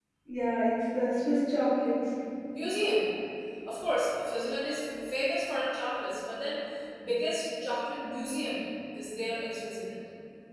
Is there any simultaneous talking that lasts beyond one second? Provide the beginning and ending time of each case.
none

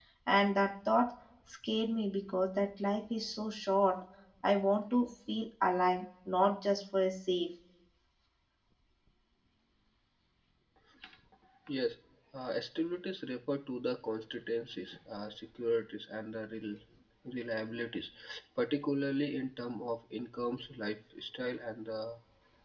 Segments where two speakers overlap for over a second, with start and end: none

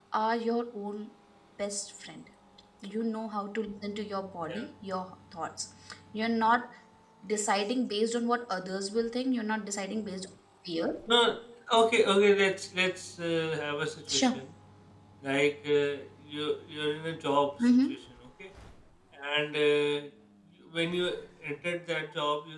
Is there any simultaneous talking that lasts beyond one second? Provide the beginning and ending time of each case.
none

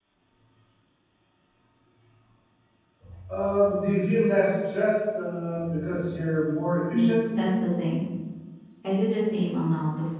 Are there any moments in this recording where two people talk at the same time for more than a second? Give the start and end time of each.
none

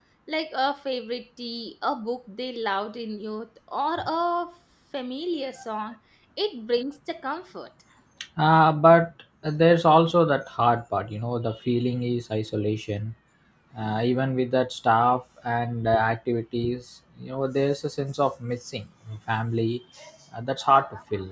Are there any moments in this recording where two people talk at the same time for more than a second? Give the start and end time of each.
none

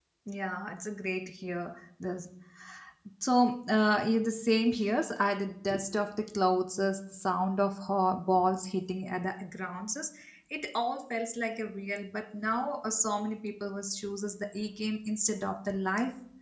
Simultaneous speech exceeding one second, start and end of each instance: none

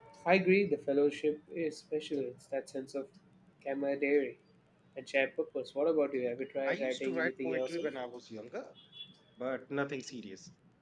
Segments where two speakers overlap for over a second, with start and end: 6.7-7.9

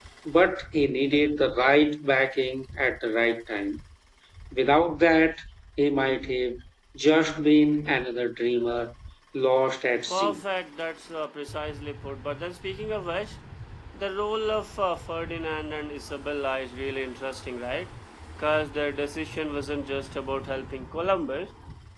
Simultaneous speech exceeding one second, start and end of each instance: none

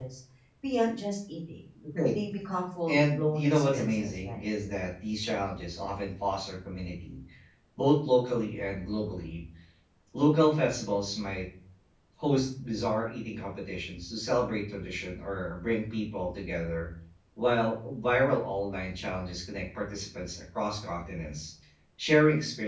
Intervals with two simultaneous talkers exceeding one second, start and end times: 2.9-4.4

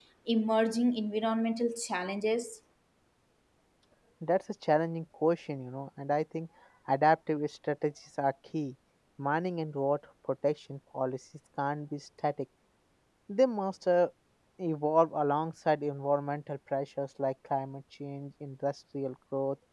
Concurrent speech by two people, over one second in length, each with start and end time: none

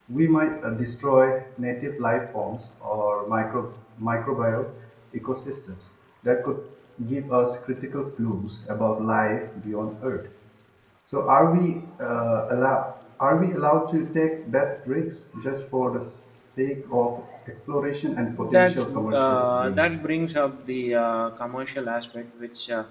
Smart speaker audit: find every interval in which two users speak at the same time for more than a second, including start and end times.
18.4-19.9

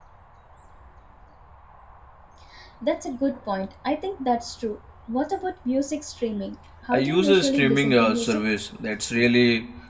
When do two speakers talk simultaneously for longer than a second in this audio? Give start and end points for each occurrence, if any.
6.9-8.4

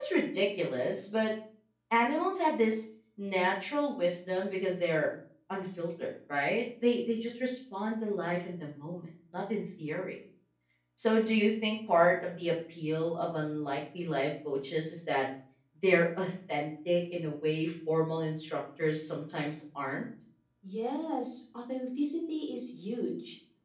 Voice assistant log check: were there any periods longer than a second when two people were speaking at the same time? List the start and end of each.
none

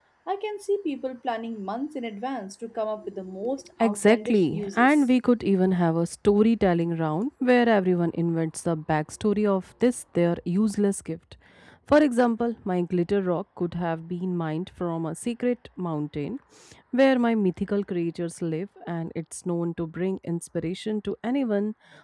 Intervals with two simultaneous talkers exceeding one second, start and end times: 3.8-5.0

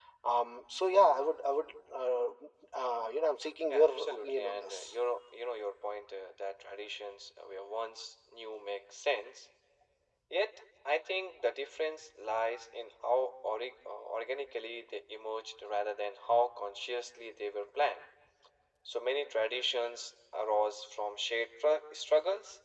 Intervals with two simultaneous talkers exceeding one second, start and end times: 3.7-4.9

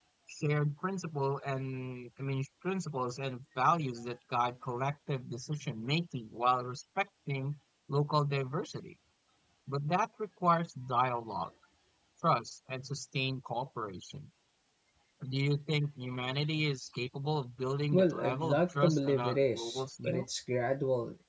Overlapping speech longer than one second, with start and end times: 17.9-20.2

